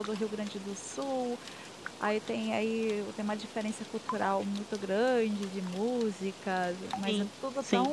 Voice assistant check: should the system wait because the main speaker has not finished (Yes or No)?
Yes